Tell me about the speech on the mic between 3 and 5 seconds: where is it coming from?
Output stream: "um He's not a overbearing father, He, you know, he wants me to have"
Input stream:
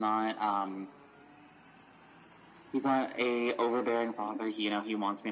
echo only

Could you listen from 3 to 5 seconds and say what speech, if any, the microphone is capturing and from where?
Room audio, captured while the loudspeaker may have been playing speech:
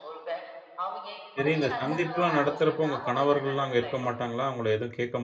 both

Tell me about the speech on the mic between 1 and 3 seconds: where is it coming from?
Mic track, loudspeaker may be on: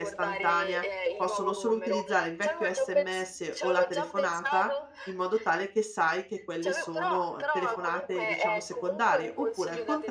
both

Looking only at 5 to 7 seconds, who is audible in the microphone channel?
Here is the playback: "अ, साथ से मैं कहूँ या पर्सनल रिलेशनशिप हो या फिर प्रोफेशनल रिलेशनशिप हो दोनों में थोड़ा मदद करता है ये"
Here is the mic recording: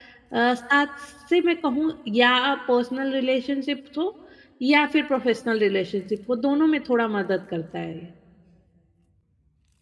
echo only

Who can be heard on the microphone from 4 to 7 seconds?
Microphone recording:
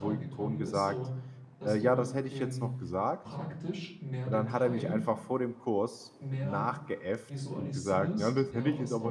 both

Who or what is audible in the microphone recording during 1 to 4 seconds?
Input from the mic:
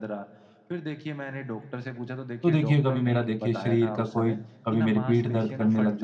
both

